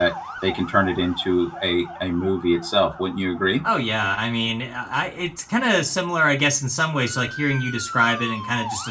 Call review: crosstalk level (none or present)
none